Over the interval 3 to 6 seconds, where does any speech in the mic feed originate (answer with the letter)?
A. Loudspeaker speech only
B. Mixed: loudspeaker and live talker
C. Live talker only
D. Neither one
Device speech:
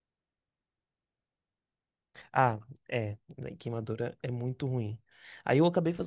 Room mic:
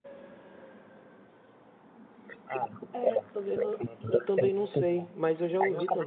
B